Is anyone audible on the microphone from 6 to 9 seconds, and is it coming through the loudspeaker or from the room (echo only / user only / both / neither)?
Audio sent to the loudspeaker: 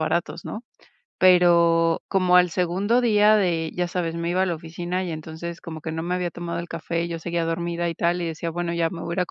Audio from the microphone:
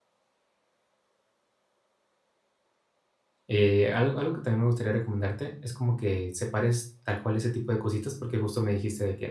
user only